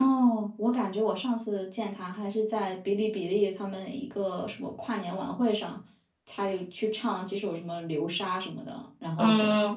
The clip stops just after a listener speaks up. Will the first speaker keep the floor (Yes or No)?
No